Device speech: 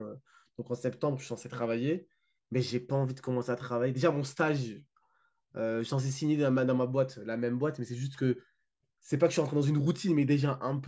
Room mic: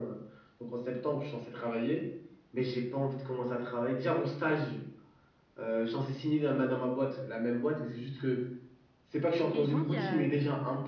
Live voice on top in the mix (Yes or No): No